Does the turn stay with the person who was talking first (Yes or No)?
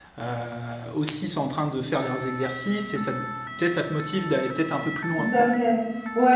No